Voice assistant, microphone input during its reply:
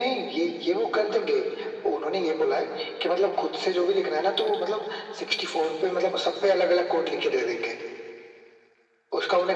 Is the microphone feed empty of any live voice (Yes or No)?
Yes